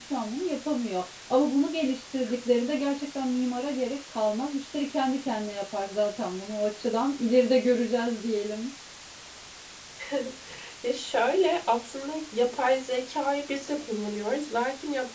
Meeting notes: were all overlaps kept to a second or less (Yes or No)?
Yes